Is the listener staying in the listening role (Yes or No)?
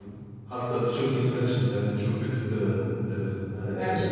Yes